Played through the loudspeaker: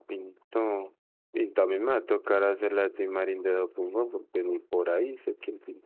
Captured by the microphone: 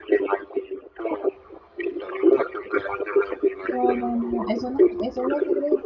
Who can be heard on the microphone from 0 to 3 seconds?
echo only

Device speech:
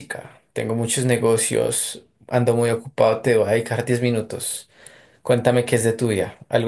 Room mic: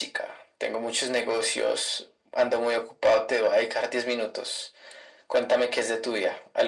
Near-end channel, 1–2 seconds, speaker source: echo only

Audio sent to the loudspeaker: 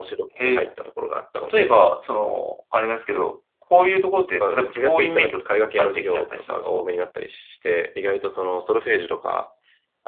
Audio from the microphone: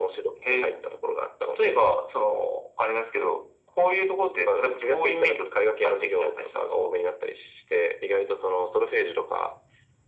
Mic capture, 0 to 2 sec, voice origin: echo only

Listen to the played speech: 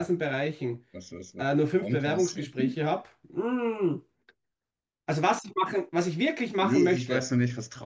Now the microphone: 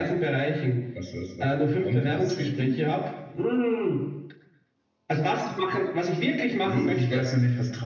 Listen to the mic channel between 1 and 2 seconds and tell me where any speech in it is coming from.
echo only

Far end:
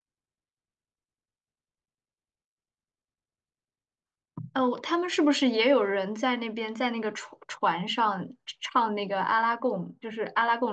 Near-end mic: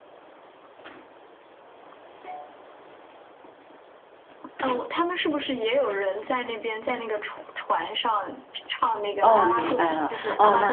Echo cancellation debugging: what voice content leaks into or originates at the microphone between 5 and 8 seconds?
echo only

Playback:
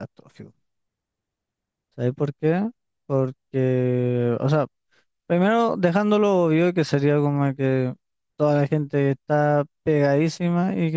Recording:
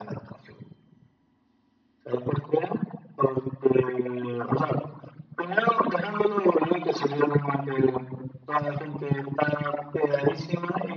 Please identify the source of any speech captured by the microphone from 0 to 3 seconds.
echo only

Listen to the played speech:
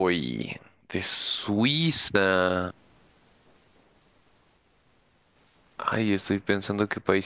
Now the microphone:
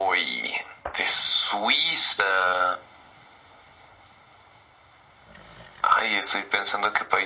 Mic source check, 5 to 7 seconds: echo only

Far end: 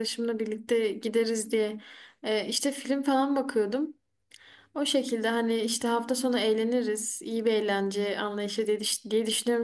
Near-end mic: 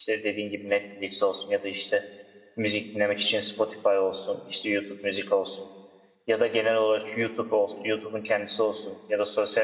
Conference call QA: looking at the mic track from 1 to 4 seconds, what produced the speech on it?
user only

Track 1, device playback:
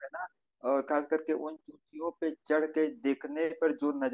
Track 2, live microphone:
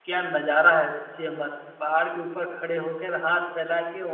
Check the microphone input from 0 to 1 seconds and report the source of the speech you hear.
user only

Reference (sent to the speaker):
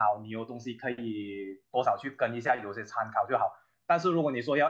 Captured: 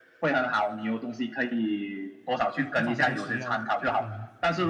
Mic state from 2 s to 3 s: both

